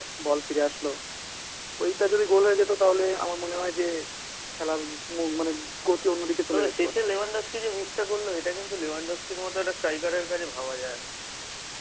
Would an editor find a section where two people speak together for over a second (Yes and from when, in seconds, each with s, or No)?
No